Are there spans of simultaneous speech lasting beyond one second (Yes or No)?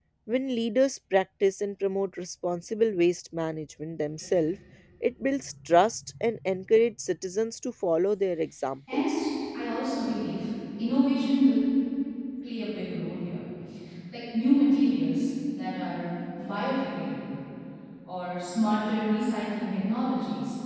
No